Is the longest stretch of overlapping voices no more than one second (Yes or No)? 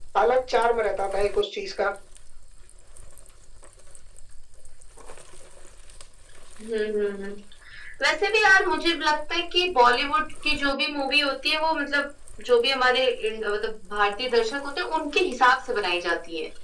Yes